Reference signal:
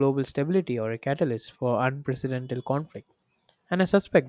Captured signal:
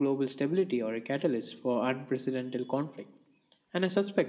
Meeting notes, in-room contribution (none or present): none